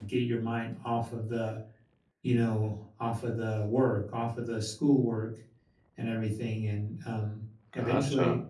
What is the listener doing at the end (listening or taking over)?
listening